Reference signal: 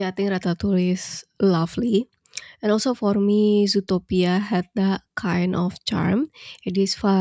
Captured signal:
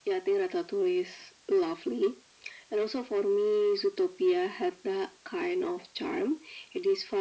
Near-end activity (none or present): none